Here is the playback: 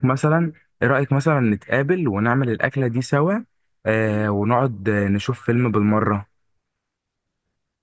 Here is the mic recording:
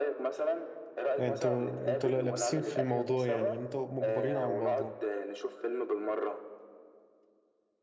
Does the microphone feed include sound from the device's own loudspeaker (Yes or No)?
Yes